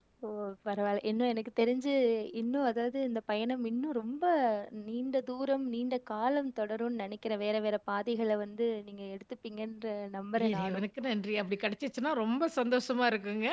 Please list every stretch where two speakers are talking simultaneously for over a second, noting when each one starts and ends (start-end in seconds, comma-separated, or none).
none